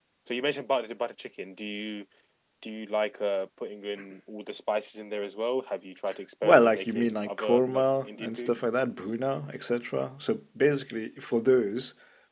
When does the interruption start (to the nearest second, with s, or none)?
6 s